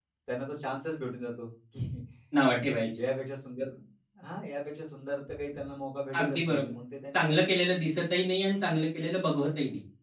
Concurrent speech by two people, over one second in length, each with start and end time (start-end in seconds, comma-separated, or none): none